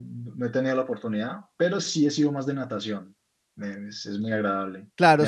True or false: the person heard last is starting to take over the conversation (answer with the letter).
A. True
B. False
A